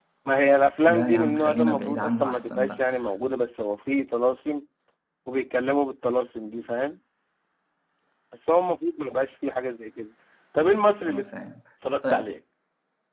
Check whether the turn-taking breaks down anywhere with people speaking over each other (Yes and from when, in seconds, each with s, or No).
Yes, from 0.9 s